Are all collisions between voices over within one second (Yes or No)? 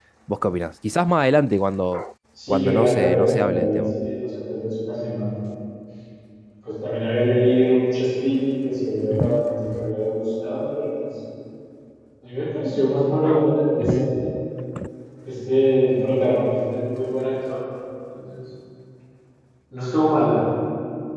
No